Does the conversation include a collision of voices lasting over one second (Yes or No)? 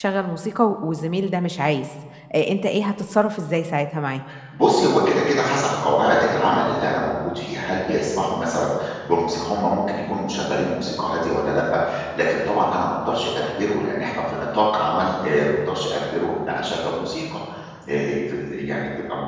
No